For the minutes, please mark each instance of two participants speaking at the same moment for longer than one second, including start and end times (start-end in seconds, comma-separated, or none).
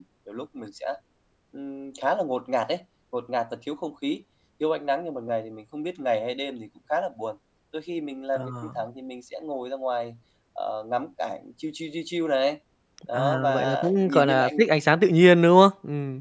13.1-14.6